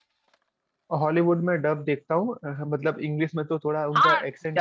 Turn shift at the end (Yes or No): Yes